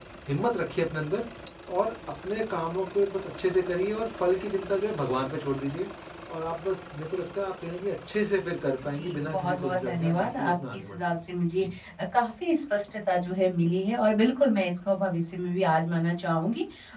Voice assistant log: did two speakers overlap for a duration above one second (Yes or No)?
Yes